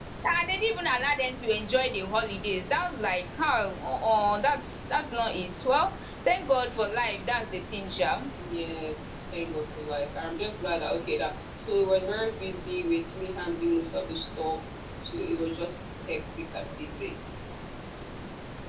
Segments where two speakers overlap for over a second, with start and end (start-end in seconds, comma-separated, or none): none